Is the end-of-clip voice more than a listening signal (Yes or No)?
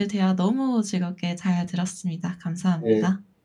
Yes